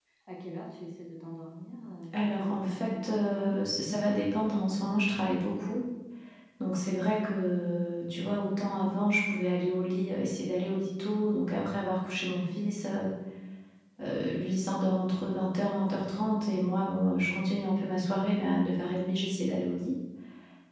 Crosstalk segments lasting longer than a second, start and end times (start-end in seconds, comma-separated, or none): 2.2-3.6